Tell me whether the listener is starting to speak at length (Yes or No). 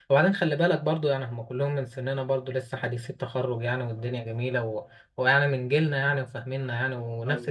No